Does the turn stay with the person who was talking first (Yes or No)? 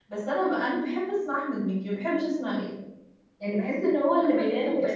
No